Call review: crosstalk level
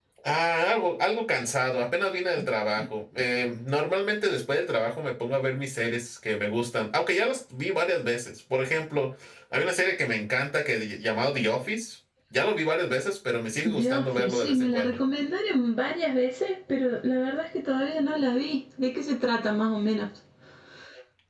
present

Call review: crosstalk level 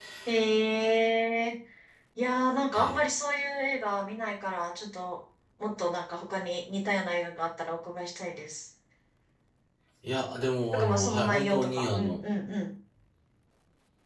present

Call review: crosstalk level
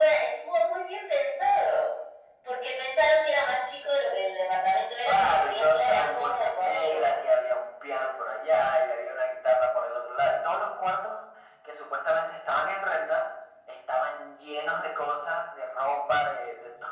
present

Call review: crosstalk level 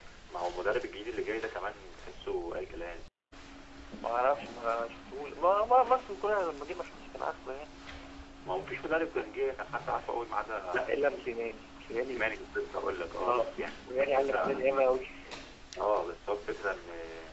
present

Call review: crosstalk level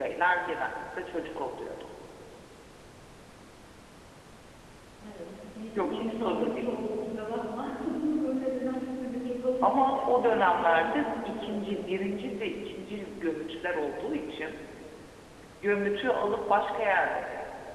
present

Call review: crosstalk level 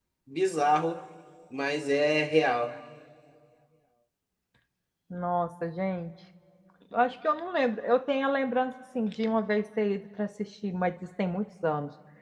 none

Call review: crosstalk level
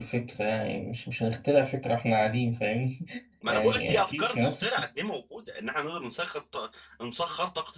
present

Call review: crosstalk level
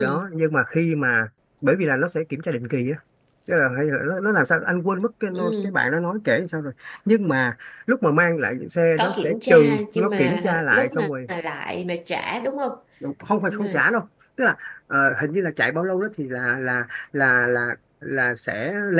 present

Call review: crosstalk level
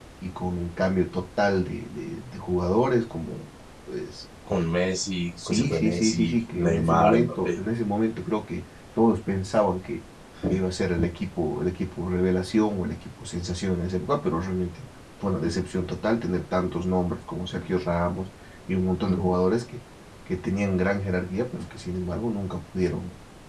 present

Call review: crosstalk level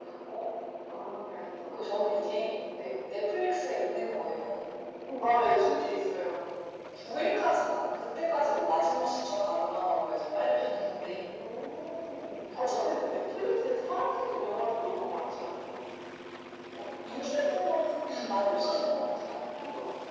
present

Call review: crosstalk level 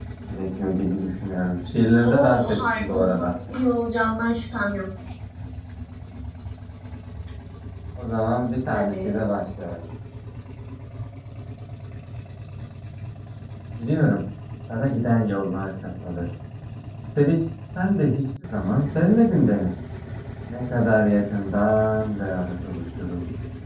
present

